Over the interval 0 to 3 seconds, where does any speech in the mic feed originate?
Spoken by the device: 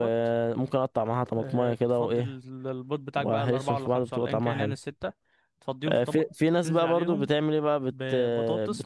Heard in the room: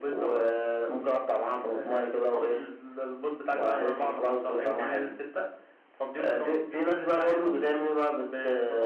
echo only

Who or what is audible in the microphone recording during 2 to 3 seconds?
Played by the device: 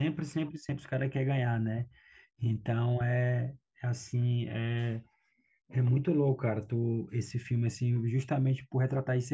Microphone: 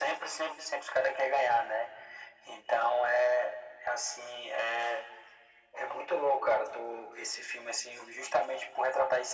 echo only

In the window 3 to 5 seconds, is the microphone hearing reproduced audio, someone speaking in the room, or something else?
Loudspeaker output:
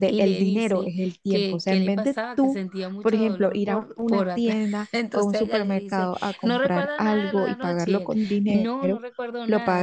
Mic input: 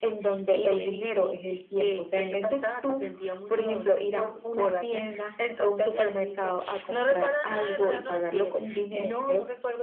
echo only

